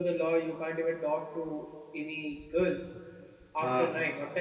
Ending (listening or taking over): listening